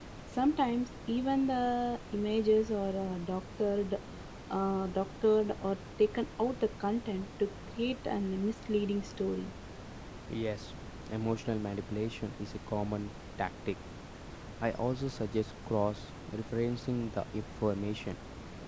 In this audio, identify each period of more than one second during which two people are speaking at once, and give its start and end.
none

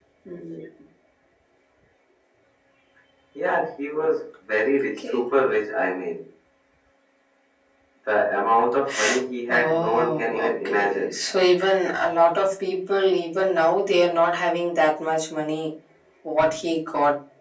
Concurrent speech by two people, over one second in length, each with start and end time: 9.5-11.2

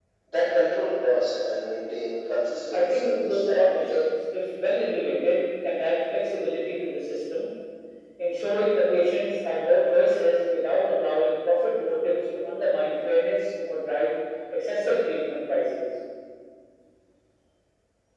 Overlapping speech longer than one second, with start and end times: 2.7-4.0

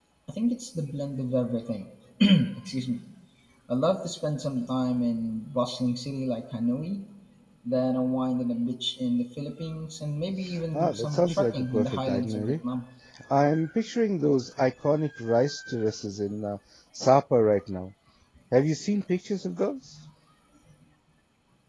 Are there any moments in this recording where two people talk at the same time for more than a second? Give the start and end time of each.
10.7-12.6

